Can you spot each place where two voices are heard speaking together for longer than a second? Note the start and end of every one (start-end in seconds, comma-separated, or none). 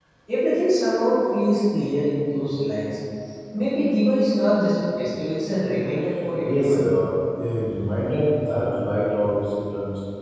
none